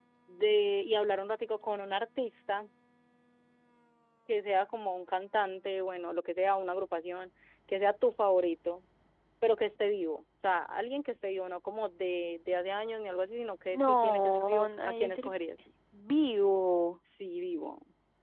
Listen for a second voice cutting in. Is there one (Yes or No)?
Yes